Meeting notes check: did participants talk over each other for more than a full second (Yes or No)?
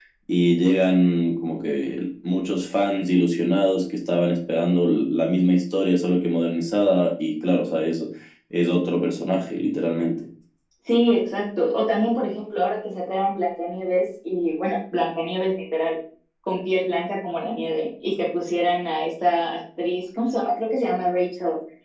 No